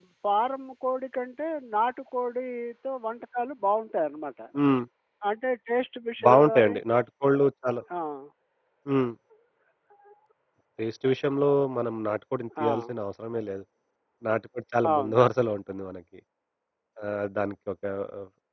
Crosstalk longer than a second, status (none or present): none